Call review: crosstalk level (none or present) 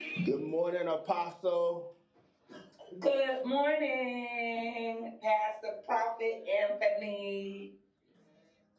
none